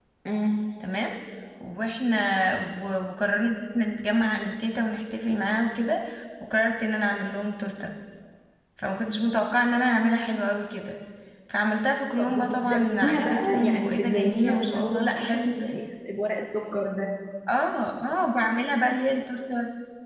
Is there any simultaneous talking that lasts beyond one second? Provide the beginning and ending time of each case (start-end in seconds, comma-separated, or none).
12.2-15.6